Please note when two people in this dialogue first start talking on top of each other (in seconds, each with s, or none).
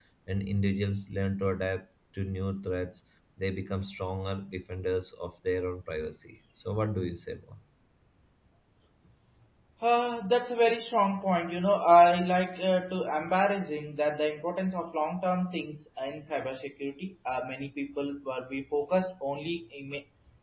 none